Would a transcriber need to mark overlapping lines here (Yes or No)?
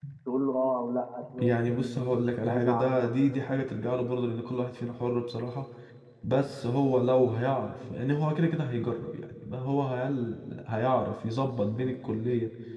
Yes